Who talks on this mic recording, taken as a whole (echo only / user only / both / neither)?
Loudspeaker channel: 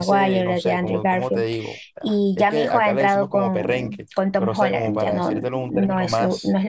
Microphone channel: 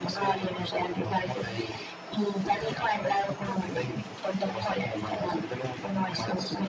echo only